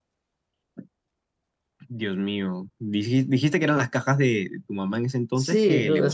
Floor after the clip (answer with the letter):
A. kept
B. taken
B